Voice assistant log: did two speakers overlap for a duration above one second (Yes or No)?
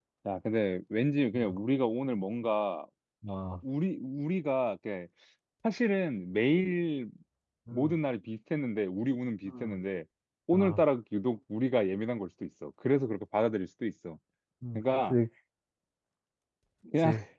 No